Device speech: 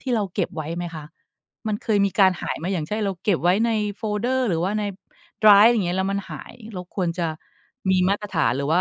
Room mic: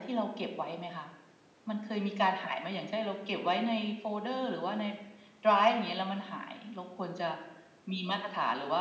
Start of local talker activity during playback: none

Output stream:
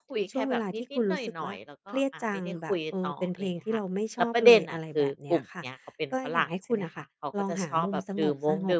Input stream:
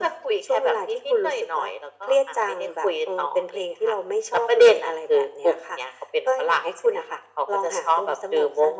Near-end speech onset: none

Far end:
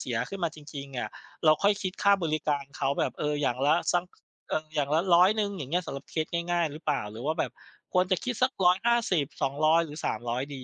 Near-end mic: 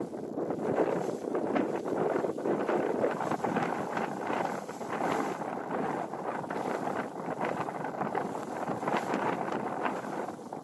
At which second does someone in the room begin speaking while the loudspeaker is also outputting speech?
none

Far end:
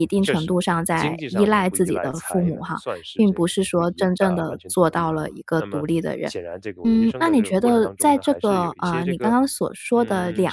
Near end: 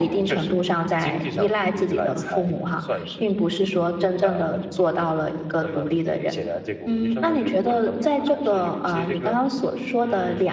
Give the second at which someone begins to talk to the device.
none

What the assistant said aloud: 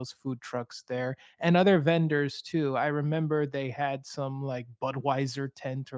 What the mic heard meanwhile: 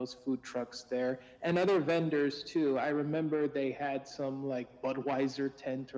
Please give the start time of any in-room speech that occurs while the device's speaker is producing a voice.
none

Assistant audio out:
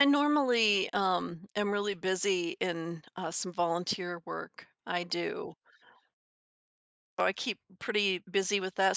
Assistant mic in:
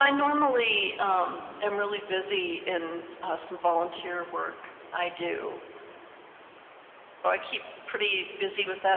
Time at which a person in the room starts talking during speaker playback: none

